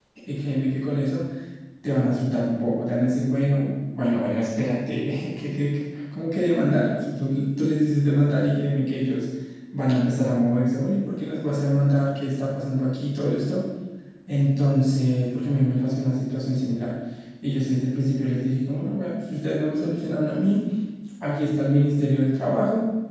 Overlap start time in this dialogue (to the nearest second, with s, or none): none